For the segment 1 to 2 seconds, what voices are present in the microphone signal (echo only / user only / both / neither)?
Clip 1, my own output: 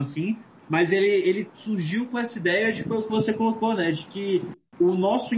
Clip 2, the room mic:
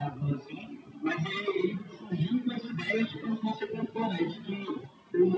echo only